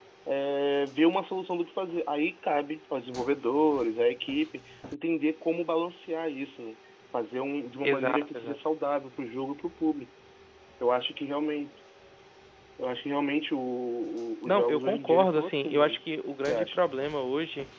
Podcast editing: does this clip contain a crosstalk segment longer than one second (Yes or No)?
Yes